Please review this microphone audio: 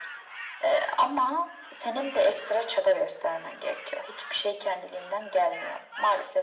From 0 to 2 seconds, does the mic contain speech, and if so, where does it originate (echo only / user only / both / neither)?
echo only